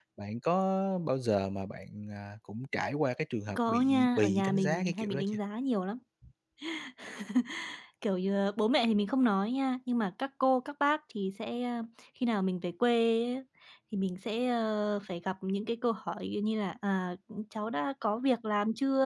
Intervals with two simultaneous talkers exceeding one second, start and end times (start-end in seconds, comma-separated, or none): 3.5-5.4